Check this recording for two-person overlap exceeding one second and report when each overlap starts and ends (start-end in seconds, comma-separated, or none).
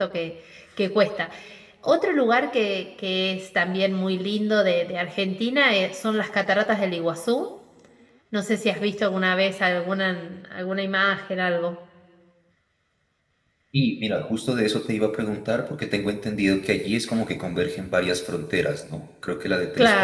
none